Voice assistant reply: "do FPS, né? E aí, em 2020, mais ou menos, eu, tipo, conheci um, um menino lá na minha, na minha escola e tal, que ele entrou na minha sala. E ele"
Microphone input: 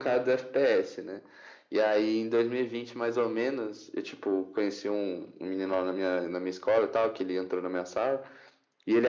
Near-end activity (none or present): none